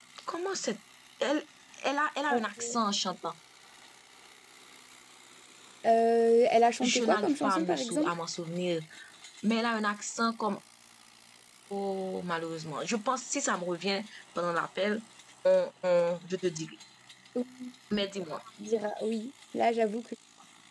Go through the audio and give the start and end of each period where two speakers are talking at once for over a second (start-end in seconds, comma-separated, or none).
6.8-8.1